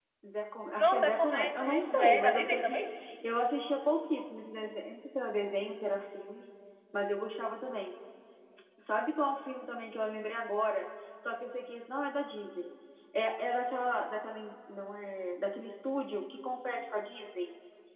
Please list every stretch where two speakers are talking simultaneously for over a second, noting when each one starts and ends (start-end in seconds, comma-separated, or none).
0.8-2.8